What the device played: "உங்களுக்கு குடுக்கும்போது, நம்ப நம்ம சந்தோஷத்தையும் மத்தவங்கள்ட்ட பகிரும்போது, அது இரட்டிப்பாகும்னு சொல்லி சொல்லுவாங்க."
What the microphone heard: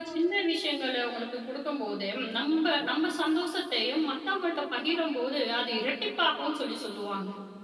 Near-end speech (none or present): none